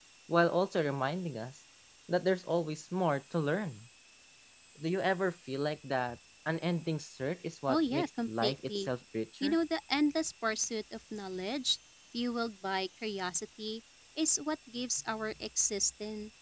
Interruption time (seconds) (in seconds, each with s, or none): 7.7 s